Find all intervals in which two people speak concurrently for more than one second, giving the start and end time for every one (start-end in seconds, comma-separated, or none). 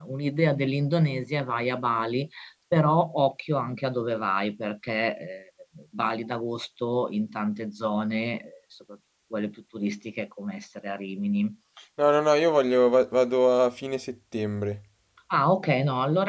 none